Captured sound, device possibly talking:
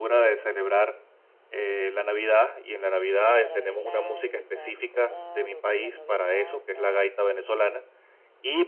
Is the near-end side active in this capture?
Yes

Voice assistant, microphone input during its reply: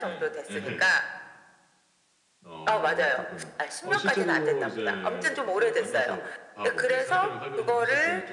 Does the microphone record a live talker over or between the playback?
Yes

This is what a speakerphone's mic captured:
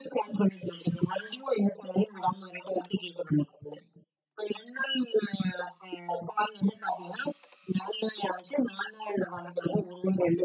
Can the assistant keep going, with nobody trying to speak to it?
Yes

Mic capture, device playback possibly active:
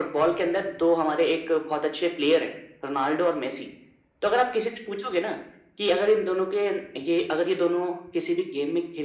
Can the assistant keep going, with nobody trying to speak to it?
Yes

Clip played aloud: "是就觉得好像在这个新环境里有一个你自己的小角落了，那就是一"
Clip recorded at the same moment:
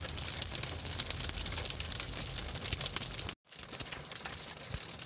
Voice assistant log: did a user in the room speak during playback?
No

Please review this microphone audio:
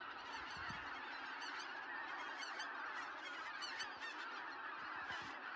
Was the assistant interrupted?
No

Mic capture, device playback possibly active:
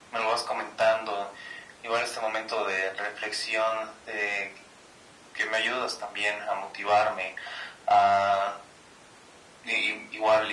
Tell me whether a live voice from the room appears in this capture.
No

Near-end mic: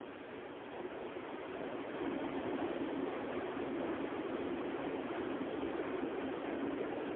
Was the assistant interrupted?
No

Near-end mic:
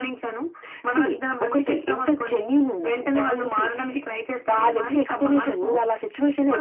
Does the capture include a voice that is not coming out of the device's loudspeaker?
Yes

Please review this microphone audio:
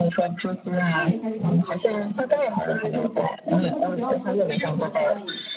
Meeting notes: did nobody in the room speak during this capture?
No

